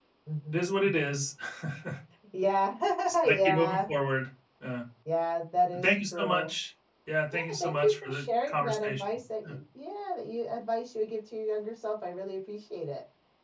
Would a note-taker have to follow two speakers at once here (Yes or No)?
Yes